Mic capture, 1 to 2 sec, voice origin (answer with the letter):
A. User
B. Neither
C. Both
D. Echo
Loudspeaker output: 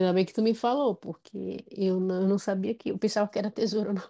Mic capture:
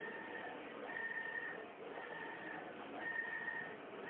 B